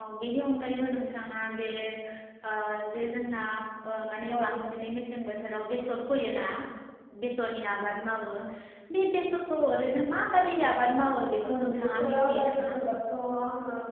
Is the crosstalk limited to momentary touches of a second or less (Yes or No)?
No